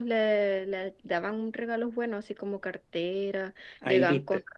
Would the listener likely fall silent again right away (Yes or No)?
Yes